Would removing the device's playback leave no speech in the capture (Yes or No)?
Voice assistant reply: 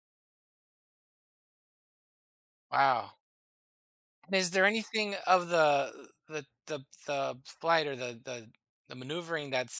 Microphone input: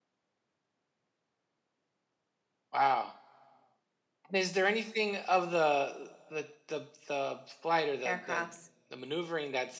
No